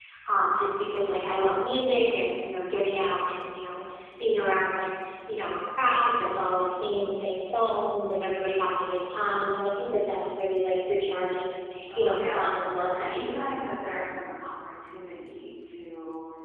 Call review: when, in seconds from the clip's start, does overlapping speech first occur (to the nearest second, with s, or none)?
12 s